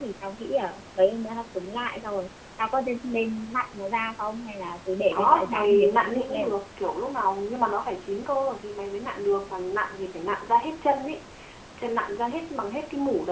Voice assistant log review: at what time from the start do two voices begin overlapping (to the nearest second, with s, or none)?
5 s